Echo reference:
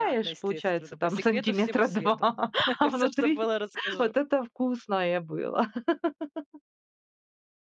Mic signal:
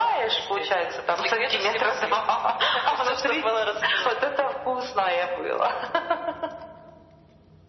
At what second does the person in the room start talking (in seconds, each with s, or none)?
none